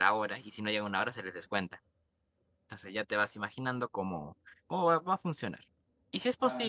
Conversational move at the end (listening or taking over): listening